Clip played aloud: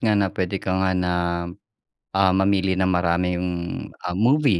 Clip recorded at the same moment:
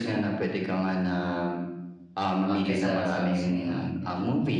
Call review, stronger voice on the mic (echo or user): echo